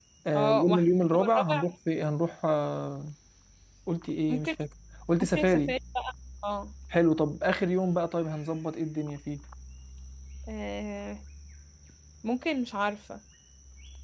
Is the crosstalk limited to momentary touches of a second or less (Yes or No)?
No